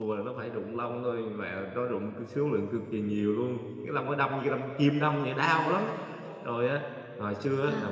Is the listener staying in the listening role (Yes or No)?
Yes